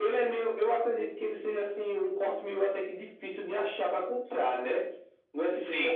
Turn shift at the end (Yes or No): No